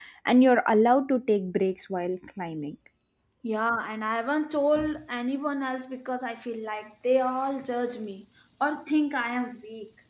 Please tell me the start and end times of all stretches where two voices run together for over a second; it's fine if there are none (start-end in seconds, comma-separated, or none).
none